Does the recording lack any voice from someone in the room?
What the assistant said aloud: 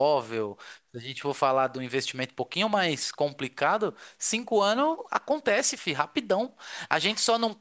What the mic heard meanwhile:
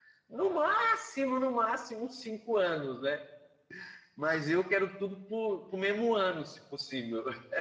No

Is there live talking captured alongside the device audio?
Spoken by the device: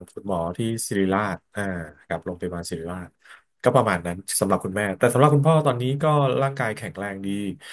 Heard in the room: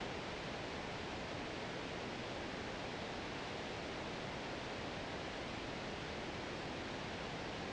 No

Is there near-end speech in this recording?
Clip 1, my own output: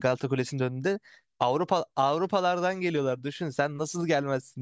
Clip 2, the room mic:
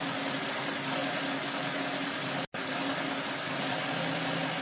No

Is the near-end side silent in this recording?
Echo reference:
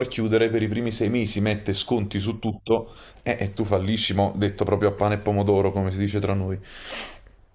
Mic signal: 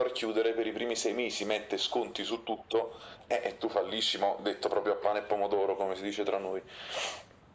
Yes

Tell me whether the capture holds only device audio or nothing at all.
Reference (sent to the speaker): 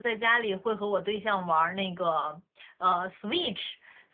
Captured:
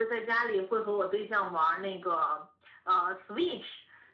Yes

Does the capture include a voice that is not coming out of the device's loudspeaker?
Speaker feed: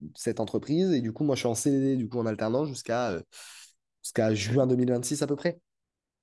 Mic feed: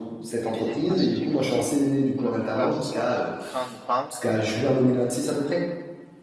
Yes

